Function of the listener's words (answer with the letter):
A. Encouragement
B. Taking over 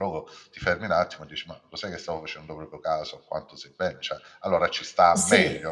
B